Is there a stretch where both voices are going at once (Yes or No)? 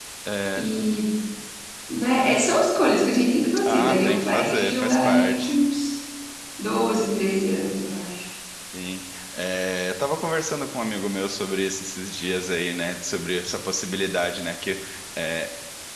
Yes